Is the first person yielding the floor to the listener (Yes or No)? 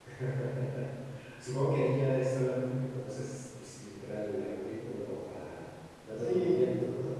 Yes